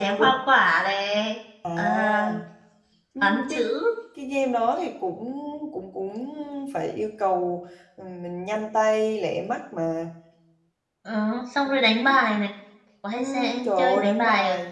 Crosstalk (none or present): present